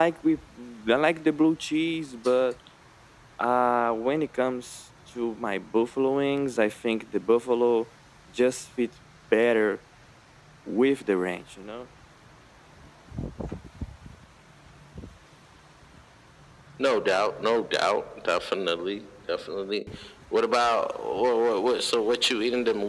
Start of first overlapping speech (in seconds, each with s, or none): none